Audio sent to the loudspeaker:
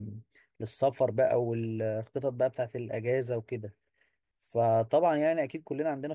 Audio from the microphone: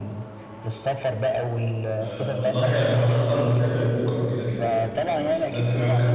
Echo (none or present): present